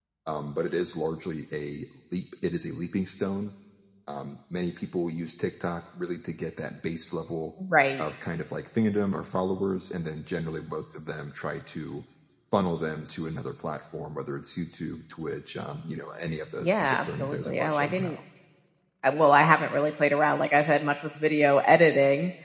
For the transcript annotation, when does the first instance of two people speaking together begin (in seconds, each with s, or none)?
16.6 s